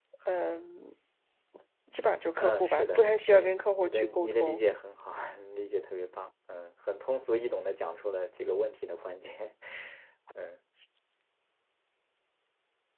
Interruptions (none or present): present